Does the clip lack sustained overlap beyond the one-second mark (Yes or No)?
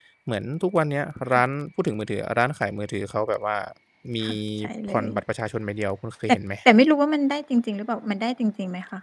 Yes